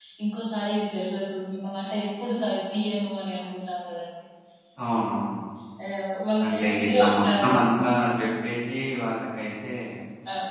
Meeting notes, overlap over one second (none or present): present